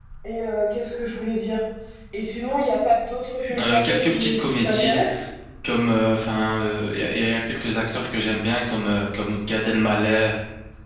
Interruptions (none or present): present